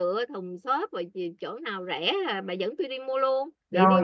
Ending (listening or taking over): taking over